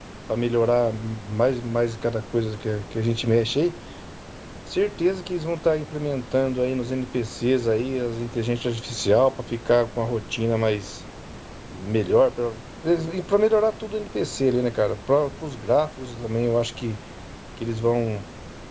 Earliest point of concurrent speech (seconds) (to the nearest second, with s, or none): none